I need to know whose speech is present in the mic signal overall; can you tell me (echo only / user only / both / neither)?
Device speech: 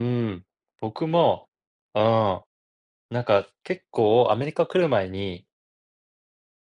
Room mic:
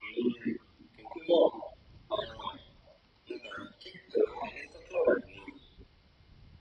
echo only